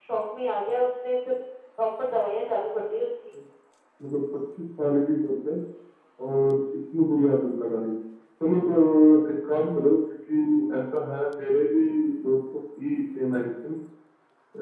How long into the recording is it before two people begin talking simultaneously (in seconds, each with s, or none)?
none